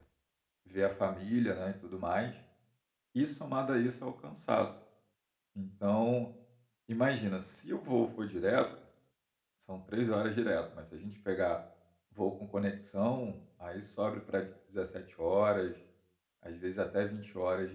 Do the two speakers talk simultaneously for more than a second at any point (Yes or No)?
No